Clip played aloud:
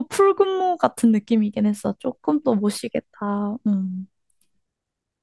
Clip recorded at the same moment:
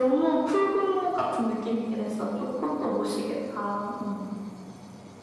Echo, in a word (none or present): present